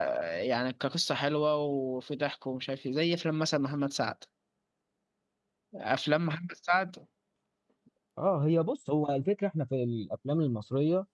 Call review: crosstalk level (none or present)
none